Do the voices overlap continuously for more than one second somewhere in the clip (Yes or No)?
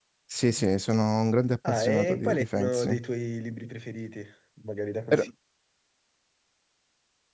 Yes